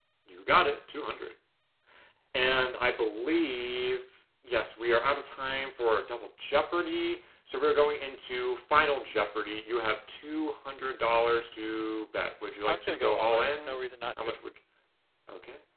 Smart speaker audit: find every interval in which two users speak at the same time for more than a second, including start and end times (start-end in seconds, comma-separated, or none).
12.6-14.4